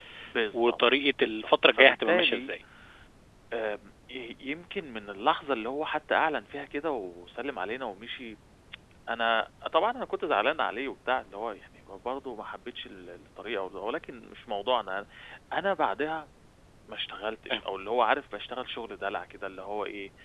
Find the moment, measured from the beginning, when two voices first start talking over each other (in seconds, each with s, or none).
0.5 s